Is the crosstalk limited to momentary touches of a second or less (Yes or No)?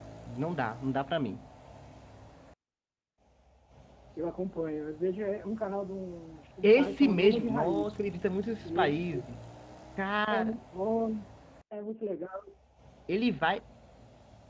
No